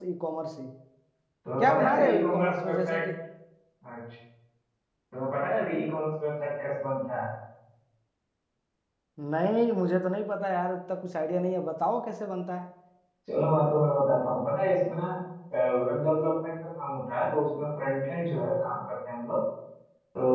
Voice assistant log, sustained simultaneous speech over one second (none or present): present